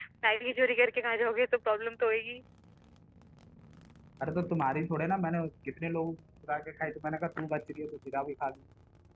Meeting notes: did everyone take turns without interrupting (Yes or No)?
Yes